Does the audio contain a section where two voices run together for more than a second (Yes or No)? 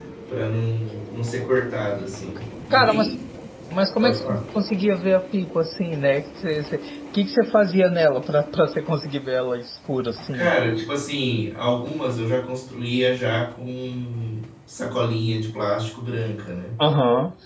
No